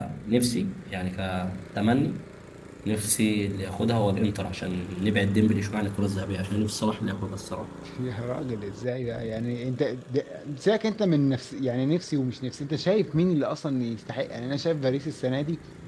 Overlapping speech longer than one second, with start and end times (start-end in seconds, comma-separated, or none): none